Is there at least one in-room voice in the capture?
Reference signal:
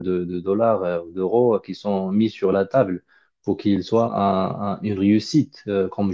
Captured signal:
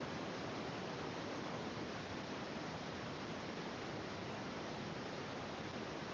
No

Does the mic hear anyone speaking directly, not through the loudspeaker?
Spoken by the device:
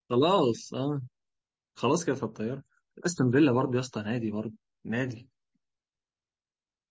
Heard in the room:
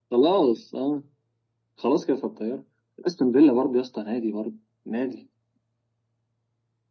No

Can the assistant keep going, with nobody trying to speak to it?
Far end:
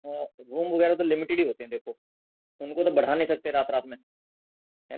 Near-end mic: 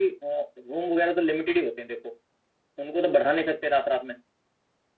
Yes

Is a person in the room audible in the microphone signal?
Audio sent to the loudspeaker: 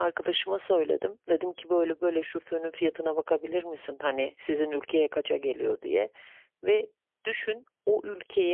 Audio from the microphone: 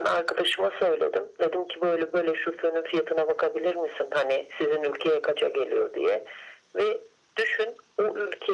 No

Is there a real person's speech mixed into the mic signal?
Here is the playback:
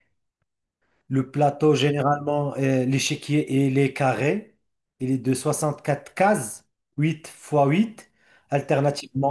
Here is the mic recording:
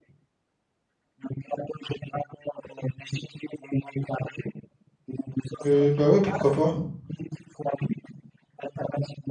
Yes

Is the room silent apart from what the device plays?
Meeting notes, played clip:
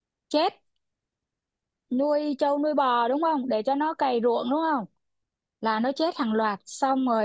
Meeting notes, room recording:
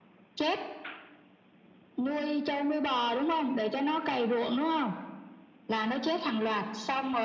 Yes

